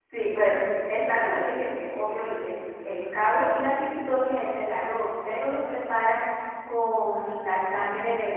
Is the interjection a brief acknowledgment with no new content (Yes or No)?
Yes